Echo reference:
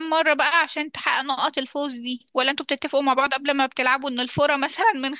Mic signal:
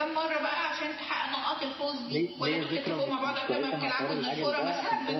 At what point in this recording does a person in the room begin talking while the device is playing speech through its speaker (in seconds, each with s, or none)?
2.0 s